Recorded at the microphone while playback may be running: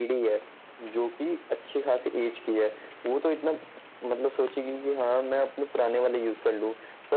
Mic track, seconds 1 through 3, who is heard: echo only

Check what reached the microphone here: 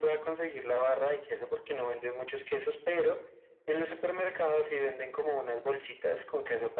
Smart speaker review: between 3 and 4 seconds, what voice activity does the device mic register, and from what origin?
echo only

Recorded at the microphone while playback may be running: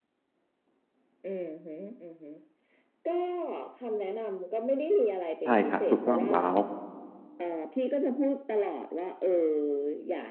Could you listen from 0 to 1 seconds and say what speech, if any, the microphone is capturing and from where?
neither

